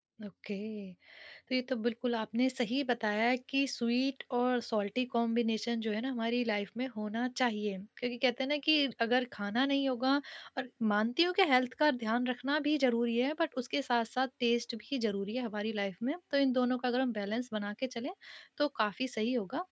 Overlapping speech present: No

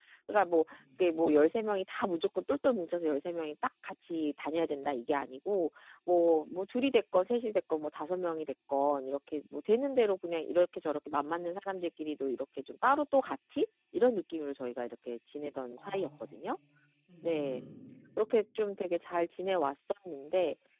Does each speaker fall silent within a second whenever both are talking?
Yes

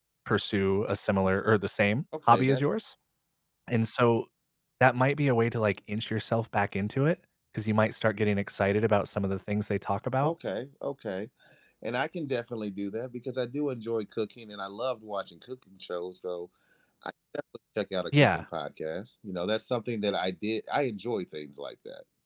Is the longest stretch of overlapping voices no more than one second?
Yes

